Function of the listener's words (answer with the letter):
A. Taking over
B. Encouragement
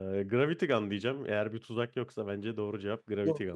A